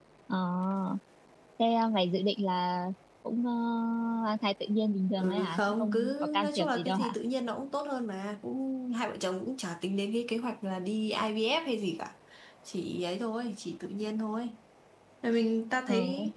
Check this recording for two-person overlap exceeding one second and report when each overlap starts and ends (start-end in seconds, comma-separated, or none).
5.2-7.2